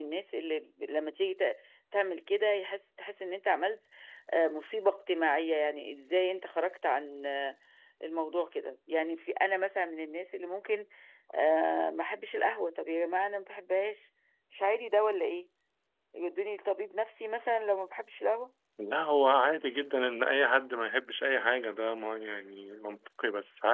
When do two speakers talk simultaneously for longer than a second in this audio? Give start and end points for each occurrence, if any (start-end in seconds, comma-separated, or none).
none